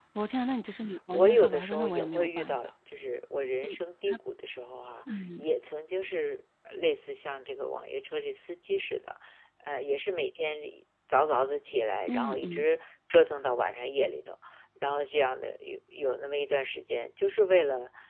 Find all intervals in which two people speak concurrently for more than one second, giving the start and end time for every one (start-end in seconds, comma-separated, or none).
1.1-2.6